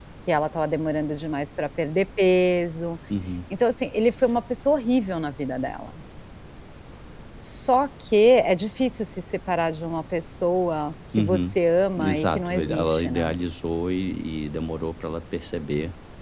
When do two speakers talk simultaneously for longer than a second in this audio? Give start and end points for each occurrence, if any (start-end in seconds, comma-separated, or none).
12.0-13.3